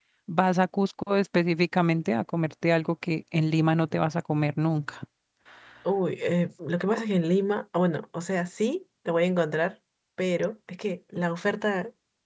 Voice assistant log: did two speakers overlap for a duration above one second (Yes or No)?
No